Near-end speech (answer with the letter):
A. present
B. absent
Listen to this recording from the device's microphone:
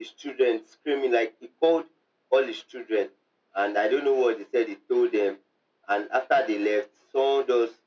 B